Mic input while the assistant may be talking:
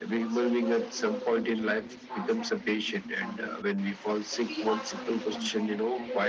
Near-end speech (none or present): present